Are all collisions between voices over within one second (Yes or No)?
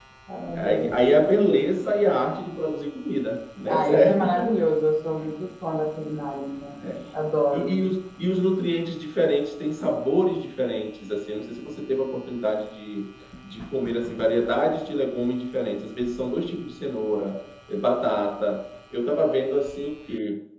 No